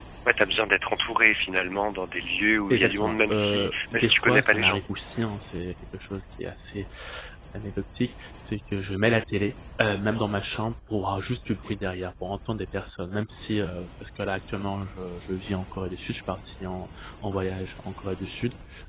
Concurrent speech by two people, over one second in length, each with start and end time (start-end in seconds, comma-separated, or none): 2.7-4.8